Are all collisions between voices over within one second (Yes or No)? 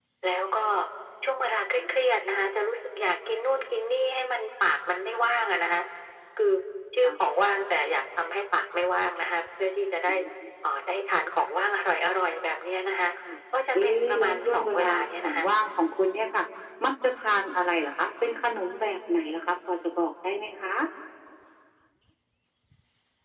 No